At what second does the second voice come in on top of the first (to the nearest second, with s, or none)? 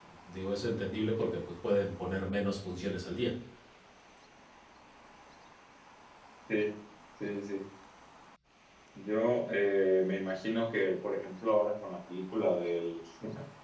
none